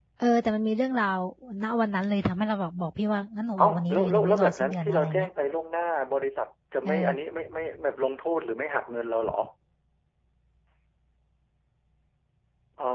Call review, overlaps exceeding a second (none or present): present